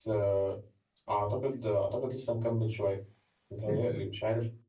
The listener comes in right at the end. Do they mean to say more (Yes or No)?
No